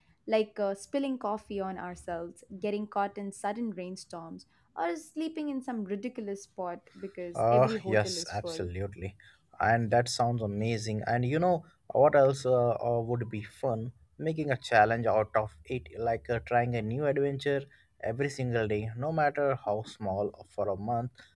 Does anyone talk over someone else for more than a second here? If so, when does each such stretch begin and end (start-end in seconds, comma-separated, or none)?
7.4-8.7